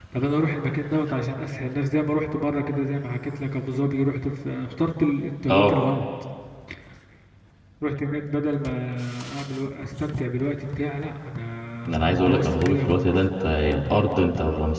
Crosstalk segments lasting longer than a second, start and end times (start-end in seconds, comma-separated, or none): 11.9-13.2